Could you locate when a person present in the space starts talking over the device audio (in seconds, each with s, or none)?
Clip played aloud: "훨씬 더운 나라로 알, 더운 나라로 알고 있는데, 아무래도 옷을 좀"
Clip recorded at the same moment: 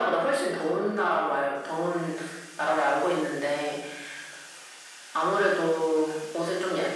none